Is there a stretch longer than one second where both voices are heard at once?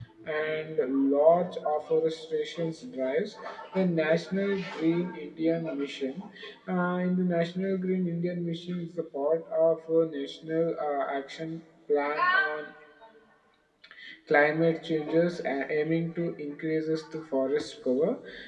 No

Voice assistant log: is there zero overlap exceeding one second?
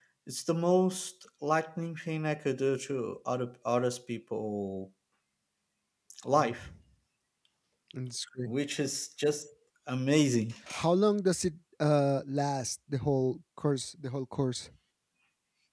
Yes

